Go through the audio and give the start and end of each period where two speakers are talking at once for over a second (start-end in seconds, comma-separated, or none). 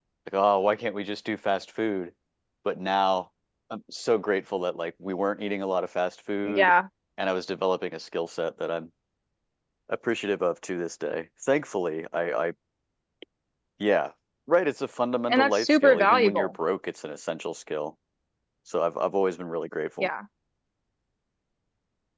15.3-16.5